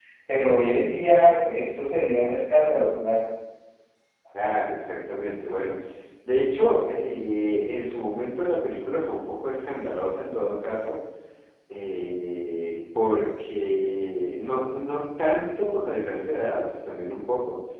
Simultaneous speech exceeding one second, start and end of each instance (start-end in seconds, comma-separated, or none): none